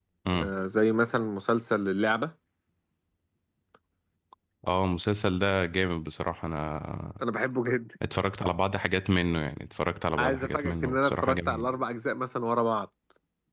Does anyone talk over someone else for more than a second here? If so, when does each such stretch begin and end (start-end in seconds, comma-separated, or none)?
10.2-11.8